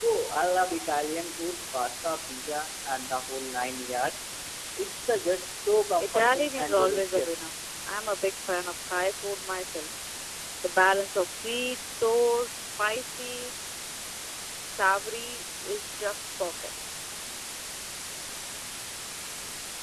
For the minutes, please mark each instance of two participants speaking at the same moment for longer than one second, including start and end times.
6.0-7.5

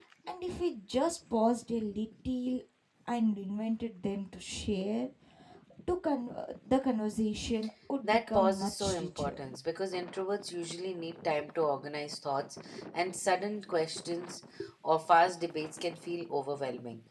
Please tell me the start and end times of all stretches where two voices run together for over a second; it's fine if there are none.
8.0-9.3

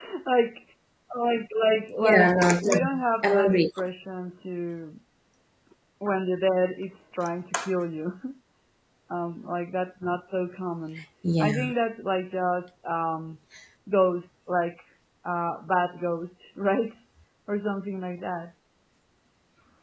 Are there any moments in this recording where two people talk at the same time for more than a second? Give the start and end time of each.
2.0-3.7

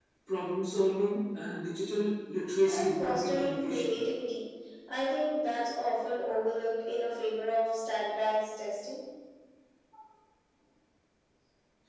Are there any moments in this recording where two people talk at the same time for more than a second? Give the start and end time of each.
2.7-3.9

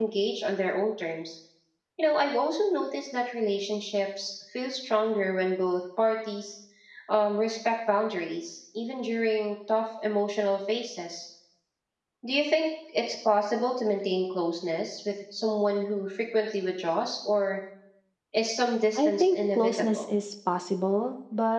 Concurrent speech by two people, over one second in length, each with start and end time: 18.9-20.1

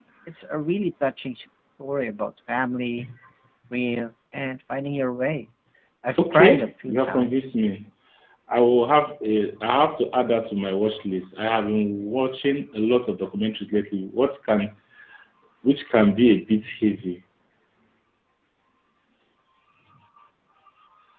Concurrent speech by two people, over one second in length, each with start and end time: 6.3-7.5

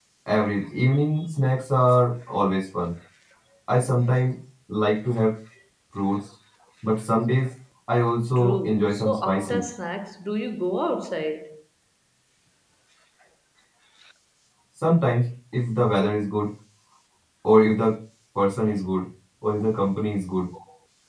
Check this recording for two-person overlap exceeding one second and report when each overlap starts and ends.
8.4-9.6

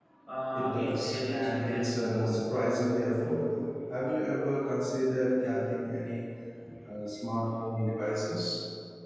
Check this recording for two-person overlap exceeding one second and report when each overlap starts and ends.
0.5-2.3

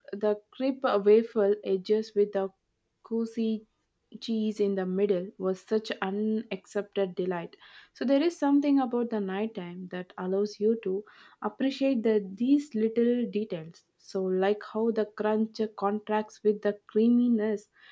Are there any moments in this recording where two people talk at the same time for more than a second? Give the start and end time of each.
none

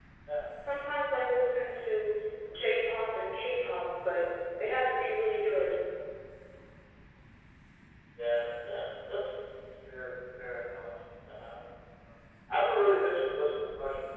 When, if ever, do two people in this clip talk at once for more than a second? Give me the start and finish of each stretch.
none

